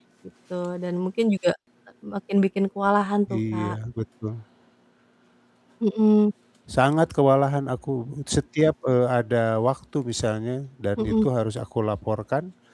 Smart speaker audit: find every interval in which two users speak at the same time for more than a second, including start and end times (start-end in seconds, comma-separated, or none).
none